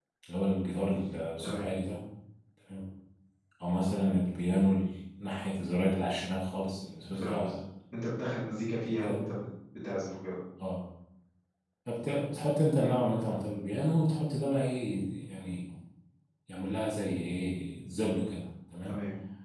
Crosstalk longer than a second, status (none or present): none